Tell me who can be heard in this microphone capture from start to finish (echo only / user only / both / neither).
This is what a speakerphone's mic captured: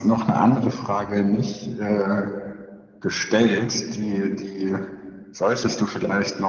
echo only